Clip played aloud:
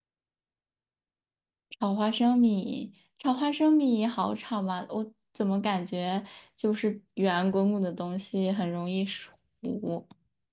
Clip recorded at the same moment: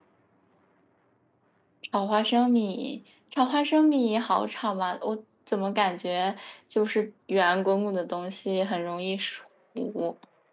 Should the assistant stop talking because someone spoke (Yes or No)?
No